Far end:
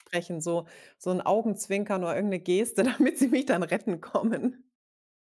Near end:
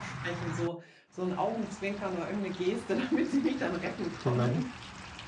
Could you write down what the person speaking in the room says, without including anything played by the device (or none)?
Genau.